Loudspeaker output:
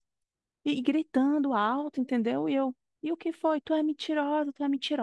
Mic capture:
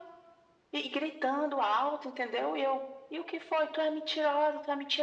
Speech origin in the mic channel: echo only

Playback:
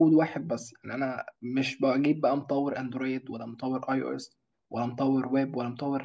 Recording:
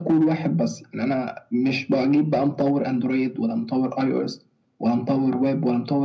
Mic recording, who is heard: echo only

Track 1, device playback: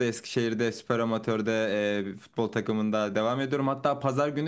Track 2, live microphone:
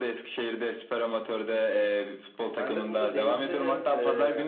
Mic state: both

